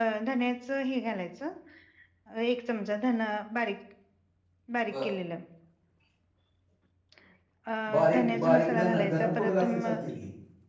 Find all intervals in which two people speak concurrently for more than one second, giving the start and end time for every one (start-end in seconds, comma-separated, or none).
7.9-9.9